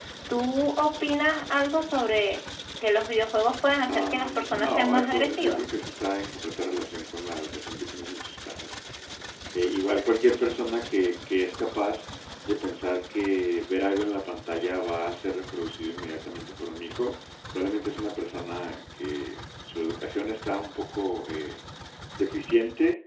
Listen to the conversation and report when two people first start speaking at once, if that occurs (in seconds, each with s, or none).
3.9 s